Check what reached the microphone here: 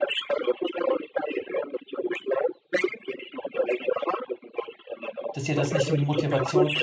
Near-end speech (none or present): present